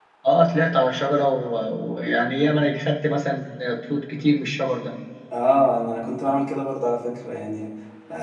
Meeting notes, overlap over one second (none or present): none